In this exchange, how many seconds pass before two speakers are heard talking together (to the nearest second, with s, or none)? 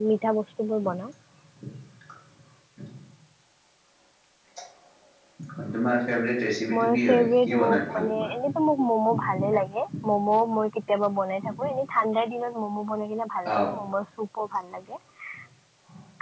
7 s